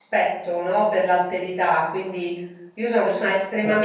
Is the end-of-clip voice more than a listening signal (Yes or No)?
No